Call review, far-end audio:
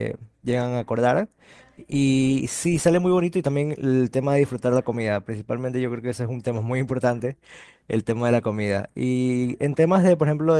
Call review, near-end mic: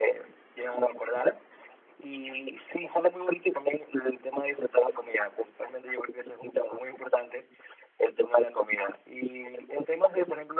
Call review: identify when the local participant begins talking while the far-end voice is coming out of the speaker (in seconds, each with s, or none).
none